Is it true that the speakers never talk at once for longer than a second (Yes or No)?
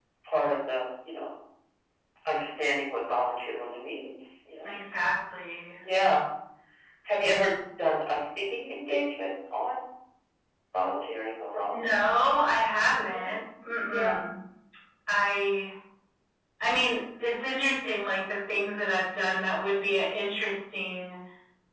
Yes